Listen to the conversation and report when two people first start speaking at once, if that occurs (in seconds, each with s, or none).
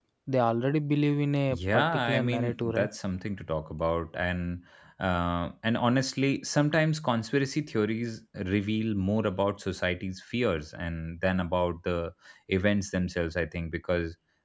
1.5 s